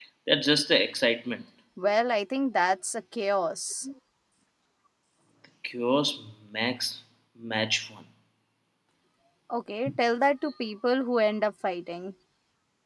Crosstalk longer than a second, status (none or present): none